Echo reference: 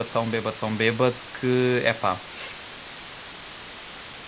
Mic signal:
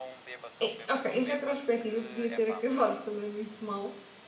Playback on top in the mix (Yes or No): No